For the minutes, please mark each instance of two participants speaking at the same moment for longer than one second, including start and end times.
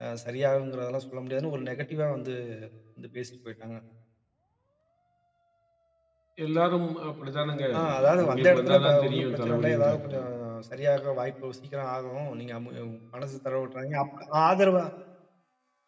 7.7-10.3

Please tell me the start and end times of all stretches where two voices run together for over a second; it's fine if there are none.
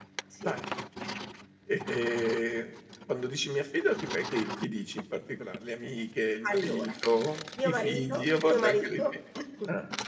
7.6-9.0

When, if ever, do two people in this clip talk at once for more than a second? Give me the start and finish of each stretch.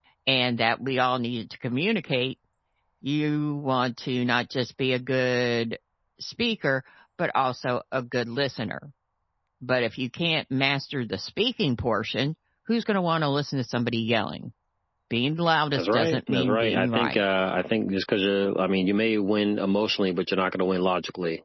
15.8-17.2

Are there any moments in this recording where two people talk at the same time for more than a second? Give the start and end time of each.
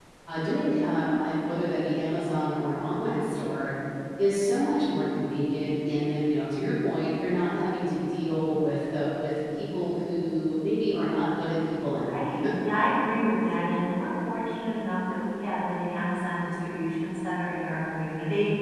none

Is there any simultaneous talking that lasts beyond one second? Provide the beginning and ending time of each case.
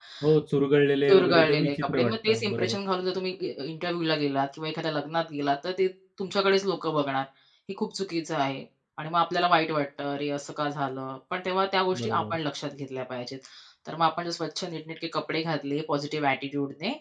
1.1-2.8

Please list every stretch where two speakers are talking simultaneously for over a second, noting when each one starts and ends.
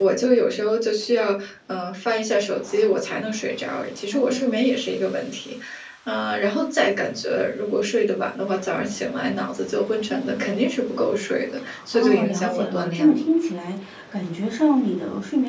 11.9-13.2

